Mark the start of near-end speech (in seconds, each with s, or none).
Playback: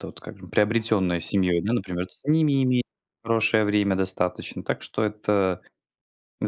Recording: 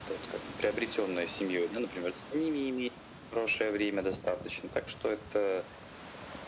none